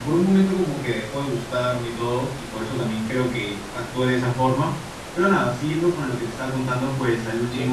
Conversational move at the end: listening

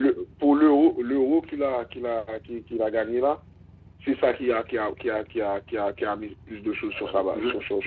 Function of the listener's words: taking over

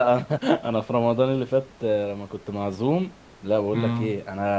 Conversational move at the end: listening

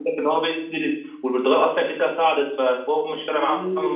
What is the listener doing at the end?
taking over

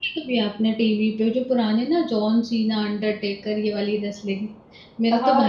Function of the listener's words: taking over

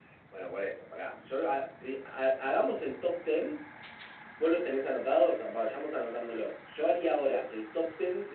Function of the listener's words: listening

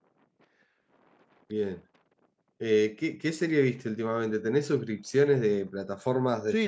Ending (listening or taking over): taking over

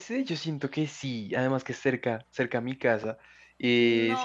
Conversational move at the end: listening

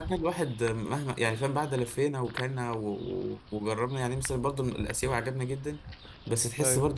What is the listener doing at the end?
listening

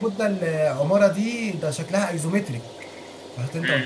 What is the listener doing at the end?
taking over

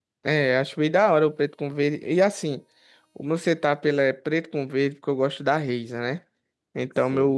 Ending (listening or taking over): listening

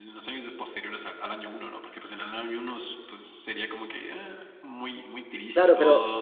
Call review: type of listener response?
taking over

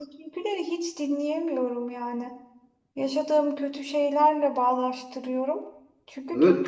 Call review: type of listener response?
taking over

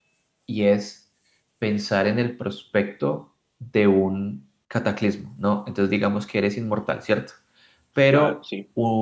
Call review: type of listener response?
listening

